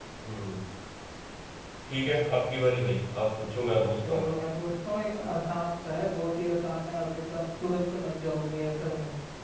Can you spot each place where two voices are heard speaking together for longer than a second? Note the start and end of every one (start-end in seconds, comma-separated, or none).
none